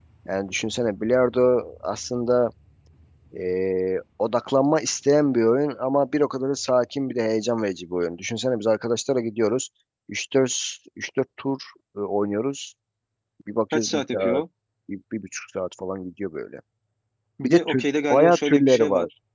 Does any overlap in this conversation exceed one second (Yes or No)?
Yes